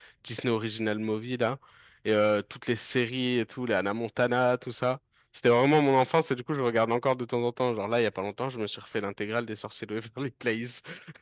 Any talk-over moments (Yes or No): No